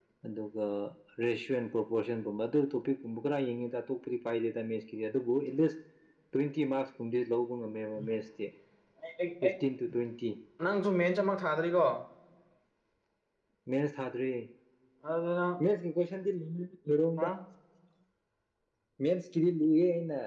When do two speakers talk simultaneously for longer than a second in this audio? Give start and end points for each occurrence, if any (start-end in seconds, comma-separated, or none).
none